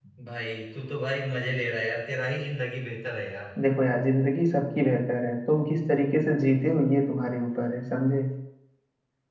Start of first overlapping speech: none

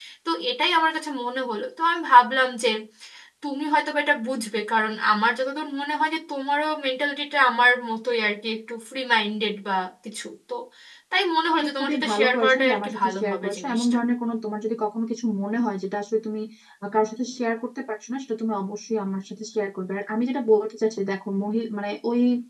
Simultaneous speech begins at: 11.6 s

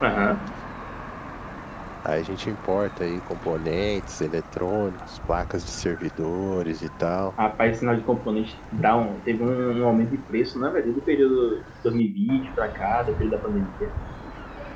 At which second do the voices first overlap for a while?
none

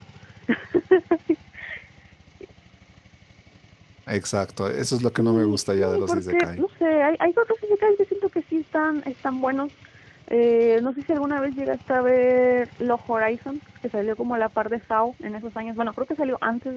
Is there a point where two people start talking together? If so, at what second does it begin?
5.0 s

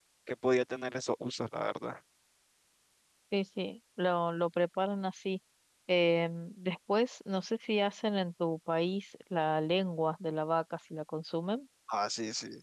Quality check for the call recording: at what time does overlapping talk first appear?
none

